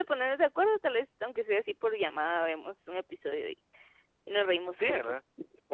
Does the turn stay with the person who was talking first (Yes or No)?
No